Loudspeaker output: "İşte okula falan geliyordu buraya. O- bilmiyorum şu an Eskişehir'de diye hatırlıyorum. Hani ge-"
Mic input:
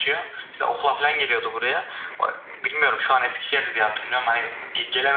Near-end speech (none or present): none